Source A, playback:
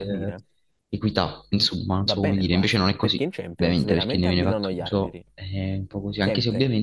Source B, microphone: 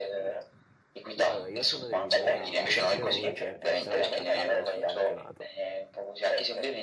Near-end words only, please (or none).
io- allora, io sono dell'idea che Antonio Conte se la porta a casa questo campionato,